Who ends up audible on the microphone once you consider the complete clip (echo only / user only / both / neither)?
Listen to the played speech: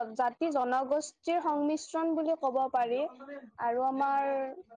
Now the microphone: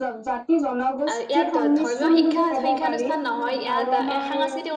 both